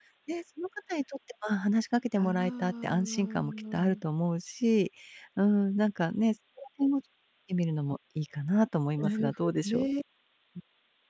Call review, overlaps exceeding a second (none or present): present